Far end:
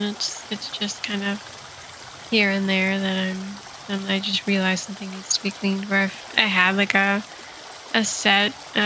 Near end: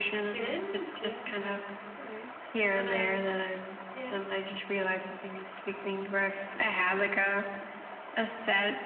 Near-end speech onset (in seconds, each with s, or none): 0.3 s